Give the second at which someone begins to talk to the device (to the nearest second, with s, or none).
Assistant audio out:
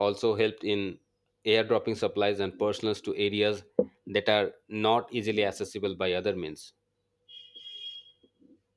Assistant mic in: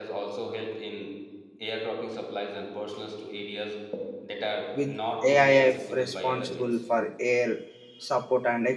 5 s